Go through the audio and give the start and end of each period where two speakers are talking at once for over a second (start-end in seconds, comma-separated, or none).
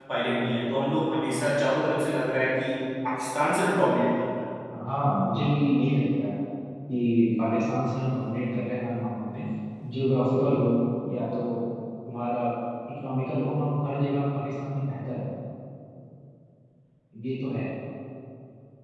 none